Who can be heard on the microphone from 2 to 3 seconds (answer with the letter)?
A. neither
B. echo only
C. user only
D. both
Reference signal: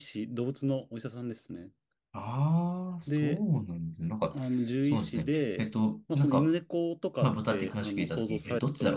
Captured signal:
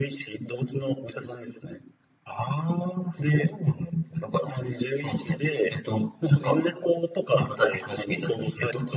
B